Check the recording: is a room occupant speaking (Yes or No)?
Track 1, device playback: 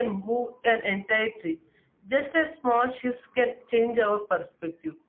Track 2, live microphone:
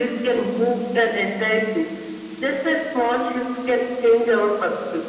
No